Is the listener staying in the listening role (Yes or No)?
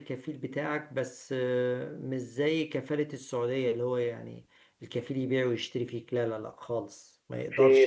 No